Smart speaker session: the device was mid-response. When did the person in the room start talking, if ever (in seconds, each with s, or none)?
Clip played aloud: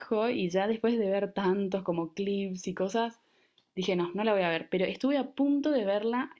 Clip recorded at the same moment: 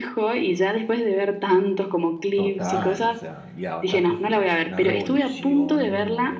2.3 s